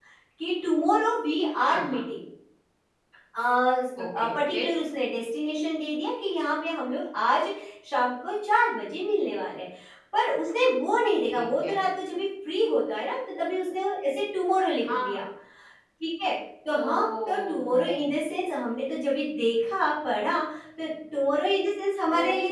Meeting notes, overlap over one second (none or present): present